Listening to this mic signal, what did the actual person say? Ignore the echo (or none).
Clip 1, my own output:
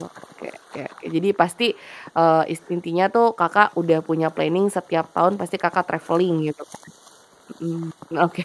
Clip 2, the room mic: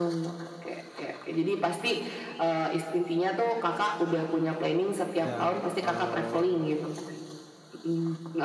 Dan, eee